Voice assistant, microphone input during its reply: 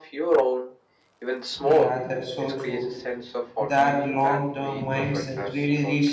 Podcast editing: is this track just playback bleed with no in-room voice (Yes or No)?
No